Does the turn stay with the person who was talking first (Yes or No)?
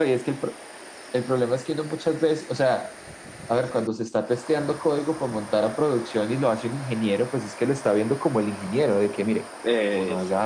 Yes